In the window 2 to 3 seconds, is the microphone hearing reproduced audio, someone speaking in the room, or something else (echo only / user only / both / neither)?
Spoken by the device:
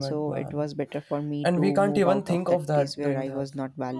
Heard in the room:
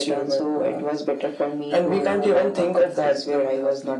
echo only